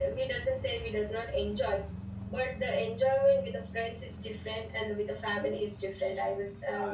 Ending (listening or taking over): taking over